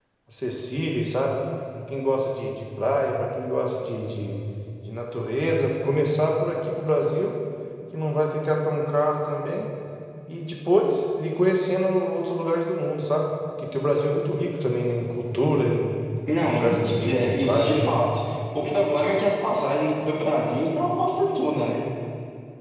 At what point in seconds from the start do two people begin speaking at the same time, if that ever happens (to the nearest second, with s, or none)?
16 s